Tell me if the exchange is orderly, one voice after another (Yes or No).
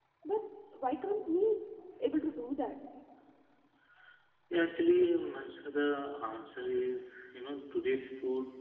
Yes